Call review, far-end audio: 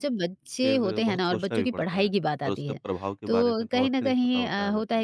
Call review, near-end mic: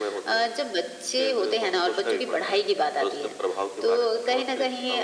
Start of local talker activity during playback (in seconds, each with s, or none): none